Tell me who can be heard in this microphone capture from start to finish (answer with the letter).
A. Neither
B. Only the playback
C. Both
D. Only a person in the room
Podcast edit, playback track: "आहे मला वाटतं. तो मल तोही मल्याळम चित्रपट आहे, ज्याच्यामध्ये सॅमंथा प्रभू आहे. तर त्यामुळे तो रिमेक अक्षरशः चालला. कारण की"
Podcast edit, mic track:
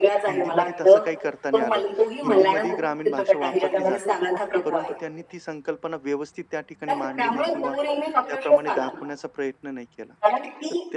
C